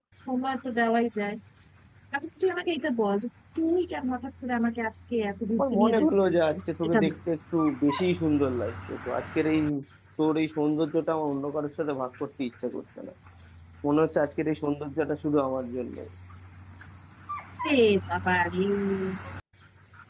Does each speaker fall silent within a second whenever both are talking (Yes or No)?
No